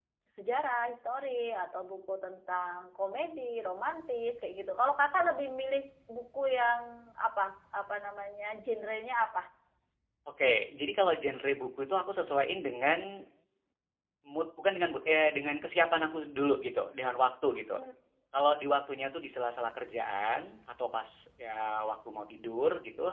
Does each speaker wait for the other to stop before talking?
Yes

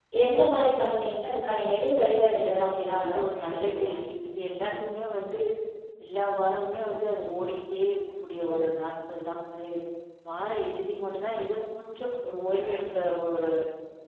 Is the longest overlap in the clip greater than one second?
Yes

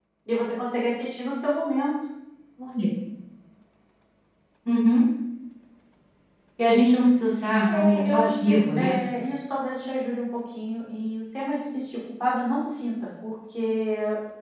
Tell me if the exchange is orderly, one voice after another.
No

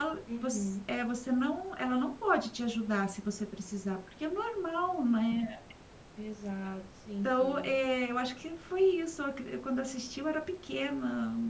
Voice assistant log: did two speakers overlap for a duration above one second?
No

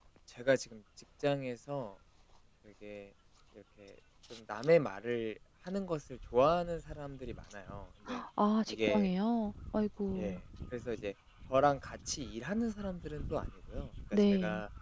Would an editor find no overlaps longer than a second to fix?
Yes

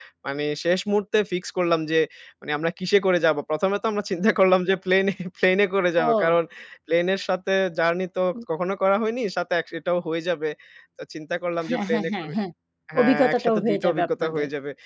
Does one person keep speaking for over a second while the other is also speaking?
Yes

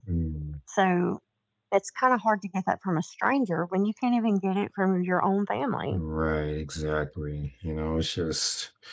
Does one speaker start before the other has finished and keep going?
No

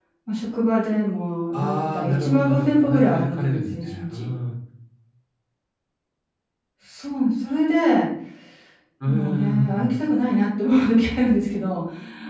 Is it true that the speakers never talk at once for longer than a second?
No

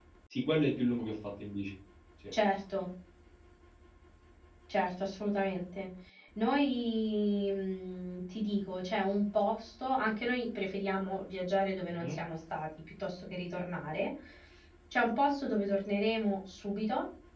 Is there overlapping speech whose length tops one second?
No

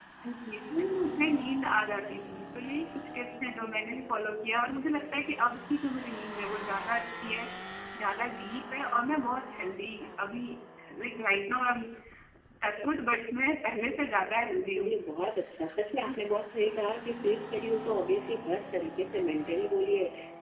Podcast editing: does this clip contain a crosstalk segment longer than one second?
No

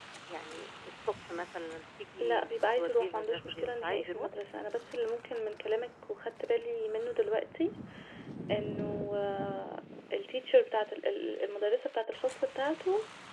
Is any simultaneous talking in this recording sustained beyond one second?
Yes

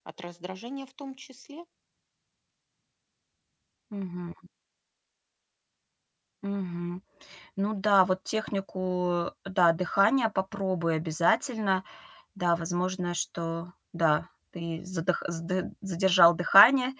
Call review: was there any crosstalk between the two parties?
No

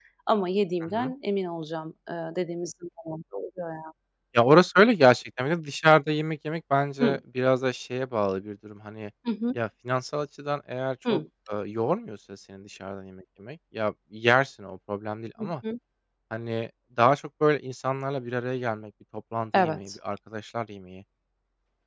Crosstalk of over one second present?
No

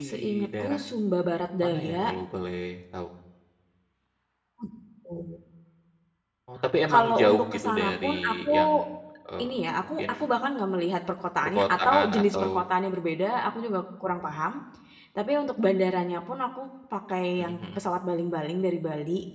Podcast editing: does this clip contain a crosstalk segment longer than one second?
Yes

